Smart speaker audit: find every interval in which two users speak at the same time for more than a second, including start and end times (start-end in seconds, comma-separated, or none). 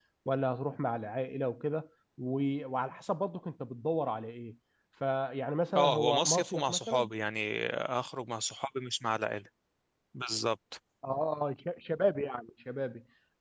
5.8-7.1